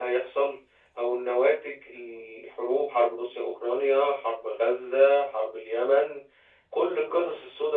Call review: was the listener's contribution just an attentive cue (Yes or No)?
Yes